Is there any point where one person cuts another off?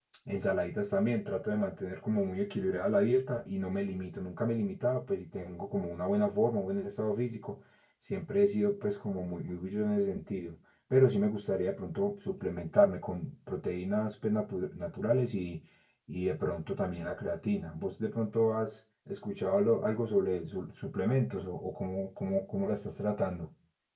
No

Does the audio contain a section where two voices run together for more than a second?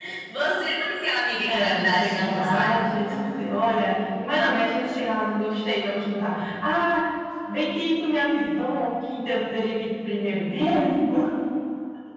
Yes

